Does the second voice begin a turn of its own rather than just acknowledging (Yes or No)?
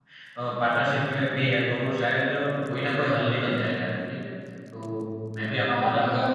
Yes